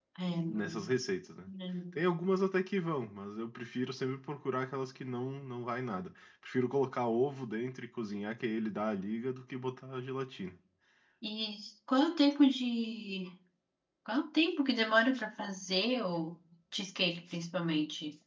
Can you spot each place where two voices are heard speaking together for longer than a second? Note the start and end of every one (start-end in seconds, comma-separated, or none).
none